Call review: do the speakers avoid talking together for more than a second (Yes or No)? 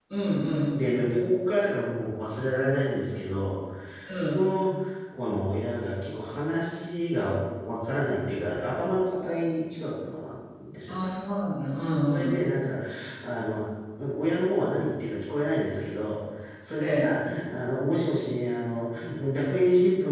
Yes